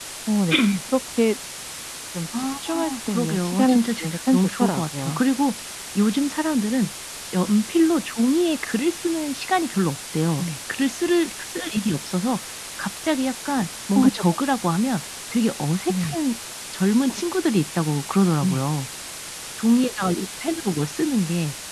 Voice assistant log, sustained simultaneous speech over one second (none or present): present